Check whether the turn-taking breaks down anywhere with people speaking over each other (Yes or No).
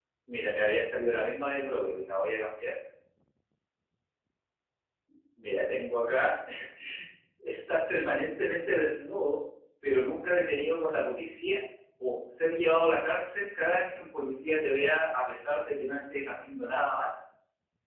No